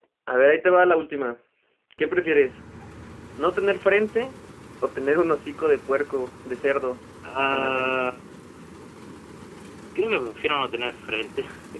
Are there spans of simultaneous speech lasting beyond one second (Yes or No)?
No